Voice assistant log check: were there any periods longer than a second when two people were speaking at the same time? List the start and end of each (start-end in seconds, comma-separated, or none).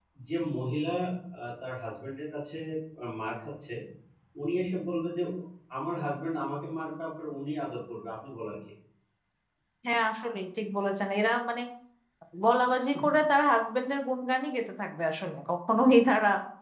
none